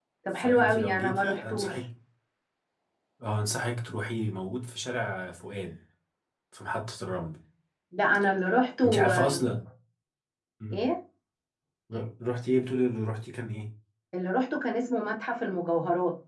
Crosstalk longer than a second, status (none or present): present